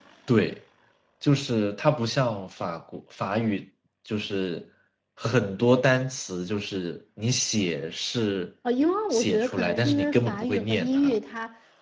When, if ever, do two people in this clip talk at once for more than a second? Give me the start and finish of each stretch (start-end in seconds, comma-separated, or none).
9.1-11.2